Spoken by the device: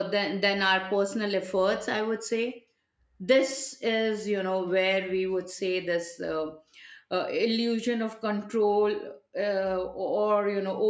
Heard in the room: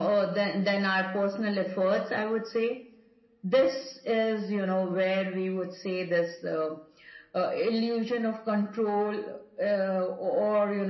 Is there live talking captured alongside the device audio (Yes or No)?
No